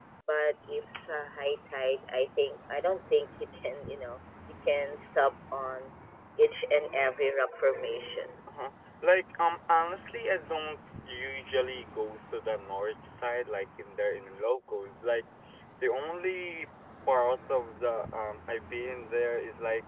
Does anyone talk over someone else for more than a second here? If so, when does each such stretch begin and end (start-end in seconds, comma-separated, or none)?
none